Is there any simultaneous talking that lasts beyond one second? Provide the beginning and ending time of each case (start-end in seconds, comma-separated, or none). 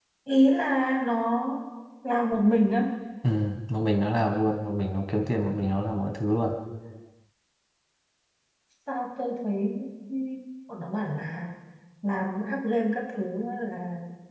none